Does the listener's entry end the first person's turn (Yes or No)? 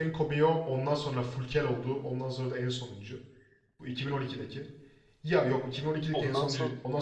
No